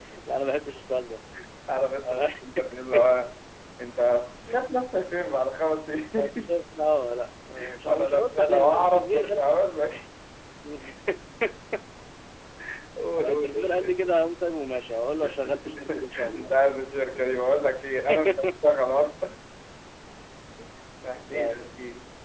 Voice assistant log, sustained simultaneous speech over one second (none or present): present